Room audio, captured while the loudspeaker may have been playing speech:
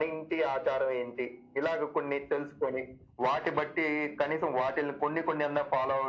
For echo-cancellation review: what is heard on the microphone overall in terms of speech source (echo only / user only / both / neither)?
echo only